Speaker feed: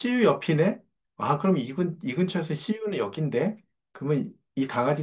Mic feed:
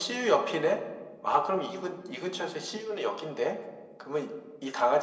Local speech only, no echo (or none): none